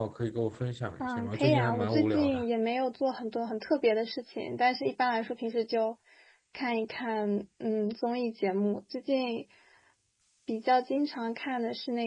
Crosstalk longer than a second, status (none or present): present